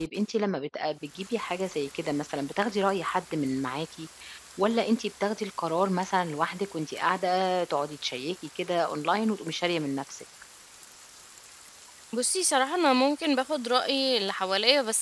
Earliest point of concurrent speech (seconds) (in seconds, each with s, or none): none